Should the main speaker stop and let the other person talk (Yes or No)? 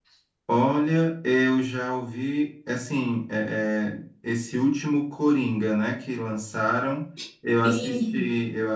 No